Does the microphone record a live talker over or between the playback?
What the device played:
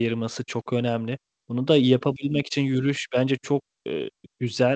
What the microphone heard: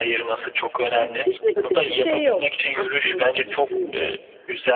Yes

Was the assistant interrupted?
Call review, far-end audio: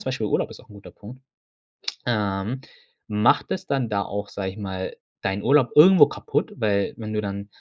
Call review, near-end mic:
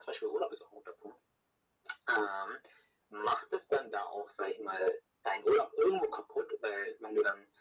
No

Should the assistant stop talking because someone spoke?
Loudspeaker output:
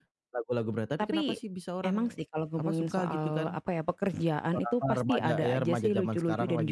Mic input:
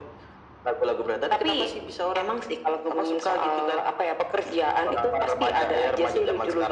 No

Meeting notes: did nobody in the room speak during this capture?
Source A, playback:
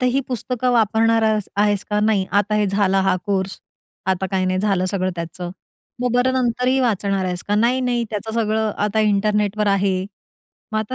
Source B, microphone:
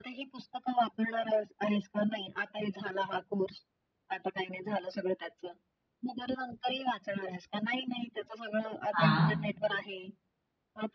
No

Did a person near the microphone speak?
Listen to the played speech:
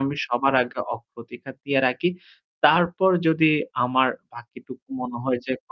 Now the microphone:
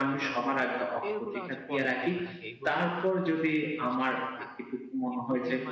Yes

